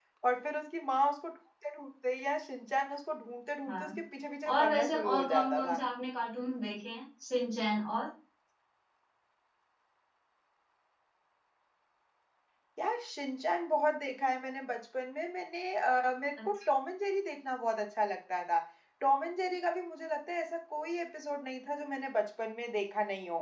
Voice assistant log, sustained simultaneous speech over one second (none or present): present